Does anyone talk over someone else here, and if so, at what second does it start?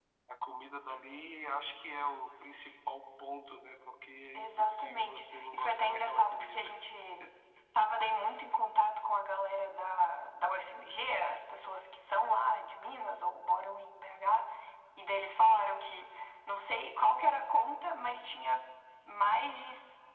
4.3 s

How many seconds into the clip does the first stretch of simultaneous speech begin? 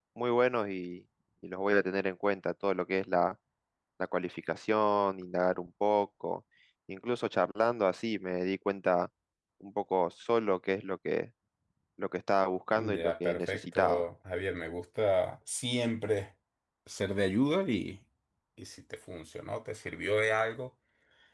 12.8 s

